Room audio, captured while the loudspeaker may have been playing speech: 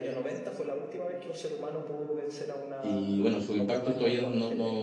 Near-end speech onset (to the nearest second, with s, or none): 3 s